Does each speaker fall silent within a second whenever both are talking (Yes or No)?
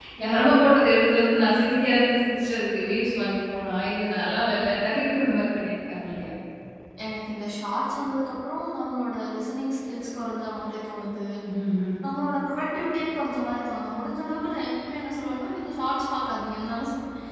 Yes